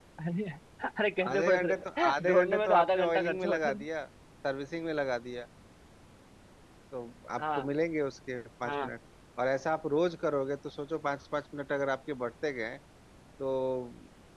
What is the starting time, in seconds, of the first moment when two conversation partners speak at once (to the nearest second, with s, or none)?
1 s